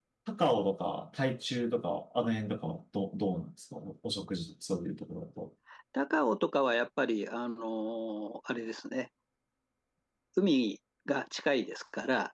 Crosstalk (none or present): none